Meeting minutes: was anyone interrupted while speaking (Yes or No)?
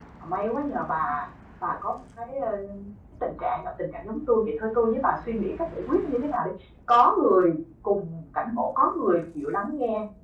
No